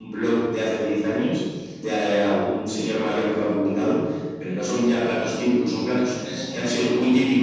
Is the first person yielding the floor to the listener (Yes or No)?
No